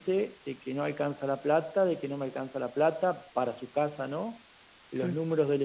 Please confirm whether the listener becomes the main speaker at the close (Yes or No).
No